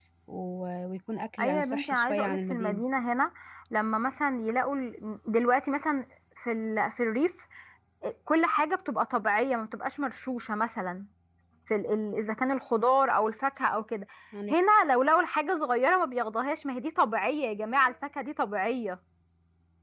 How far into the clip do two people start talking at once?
1 s

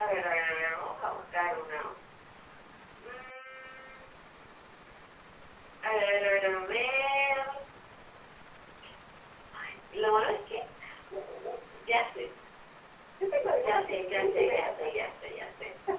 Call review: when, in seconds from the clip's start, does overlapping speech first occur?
14 s

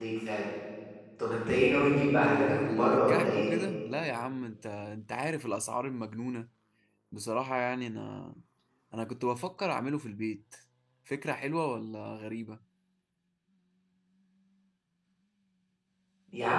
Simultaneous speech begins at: 2 s

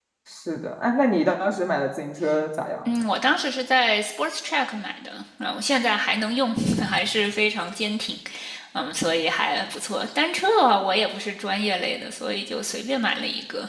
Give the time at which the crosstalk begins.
none

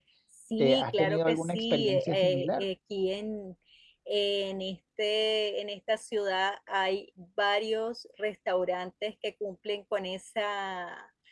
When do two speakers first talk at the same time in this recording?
1 s

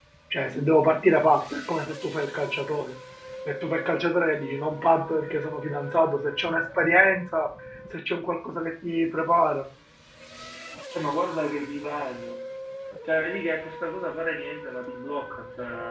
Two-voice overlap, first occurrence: none

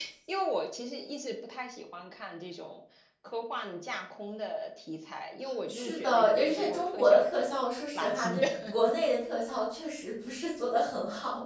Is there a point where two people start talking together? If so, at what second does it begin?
6 s

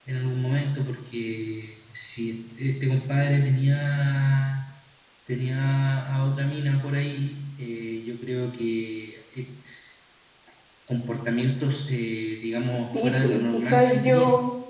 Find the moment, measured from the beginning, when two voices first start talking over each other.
13 s

